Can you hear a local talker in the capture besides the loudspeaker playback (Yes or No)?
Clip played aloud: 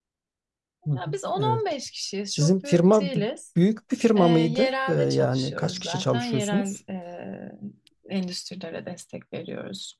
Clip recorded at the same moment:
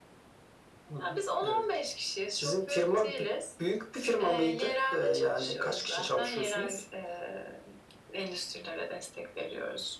No